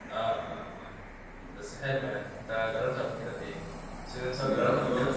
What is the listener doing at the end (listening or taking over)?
taking over